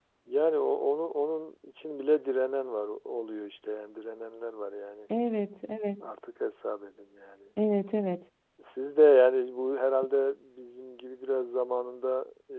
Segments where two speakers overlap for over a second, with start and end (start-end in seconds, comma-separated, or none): none